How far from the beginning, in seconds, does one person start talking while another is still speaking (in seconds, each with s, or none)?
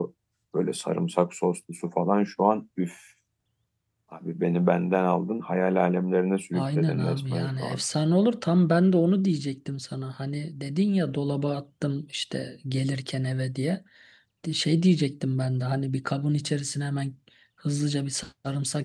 6.5 s